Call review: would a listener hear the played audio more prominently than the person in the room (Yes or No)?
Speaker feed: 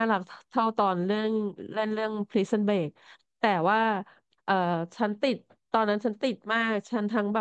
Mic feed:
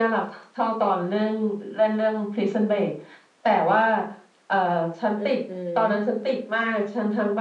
Yes